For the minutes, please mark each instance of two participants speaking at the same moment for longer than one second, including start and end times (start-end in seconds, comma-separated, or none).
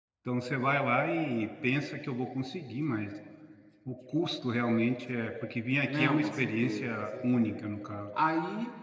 5.8-7.6